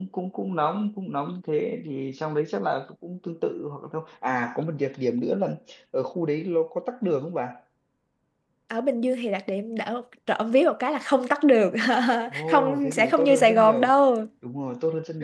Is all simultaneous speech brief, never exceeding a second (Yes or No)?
No